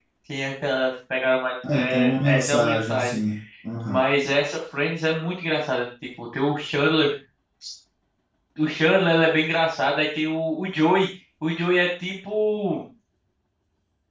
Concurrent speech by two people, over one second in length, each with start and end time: 1.7-3.2

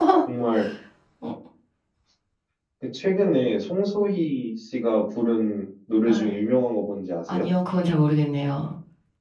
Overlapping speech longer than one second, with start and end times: none

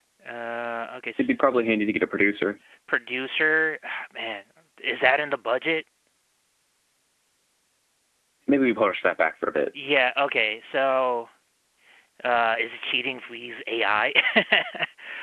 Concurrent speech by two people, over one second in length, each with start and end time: none

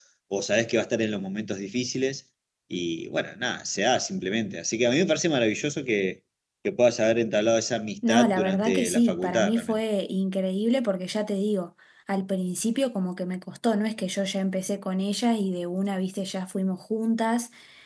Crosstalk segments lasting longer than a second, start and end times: 8.1-9.8

